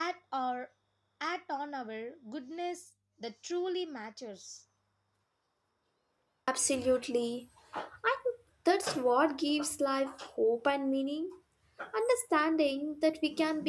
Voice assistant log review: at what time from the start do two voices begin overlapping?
none

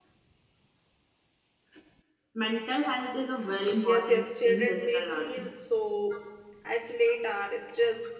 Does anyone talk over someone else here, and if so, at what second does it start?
3.8 s

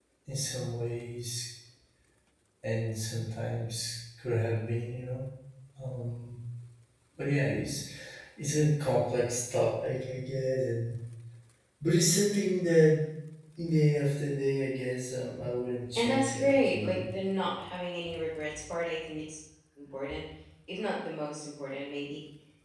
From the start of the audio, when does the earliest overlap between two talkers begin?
15.9 s

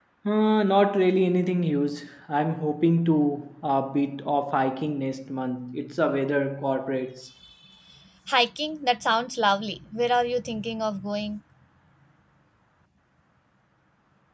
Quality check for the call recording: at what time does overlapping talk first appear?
none

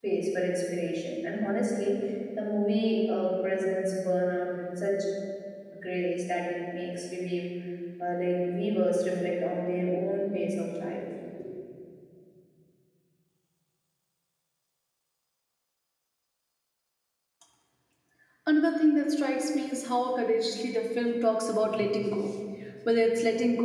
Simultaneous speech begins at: none

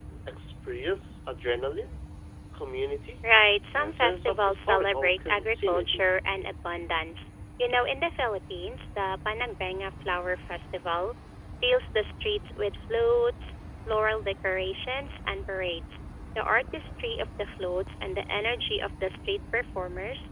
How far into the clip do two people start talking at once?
3.8 s

